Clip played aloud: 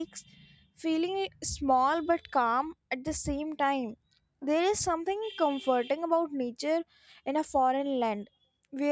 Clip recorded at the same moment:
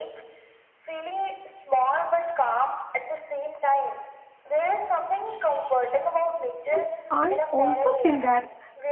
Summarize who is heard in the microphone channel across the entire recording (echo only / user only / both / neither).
both